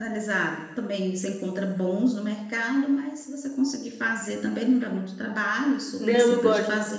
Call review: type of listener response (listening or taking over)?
taking over